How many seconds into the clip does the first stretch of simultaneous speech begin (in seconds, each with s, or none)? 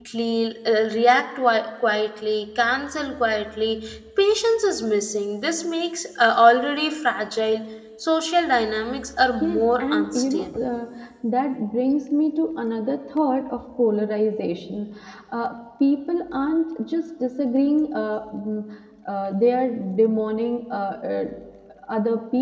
9.4 s